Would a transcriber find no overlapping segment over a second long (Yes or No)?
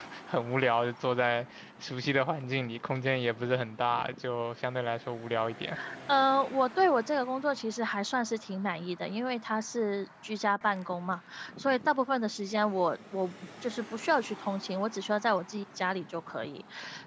Yes